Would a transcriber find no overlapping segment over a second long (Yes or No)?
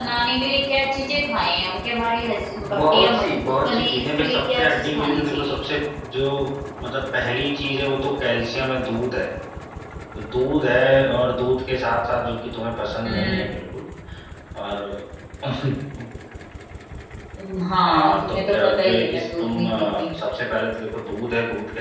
No